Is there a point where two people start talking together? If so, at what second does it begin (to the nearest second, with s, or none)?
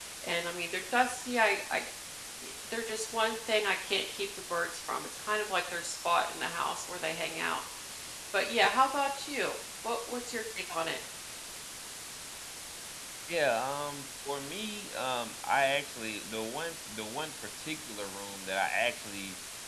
none